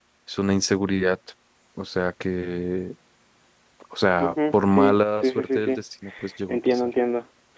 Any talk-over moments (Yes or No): Yes